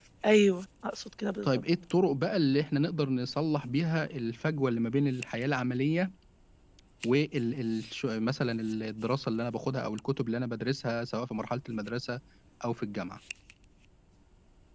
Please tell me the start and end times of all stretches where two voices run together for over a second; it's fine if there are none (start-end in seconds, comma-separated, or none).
none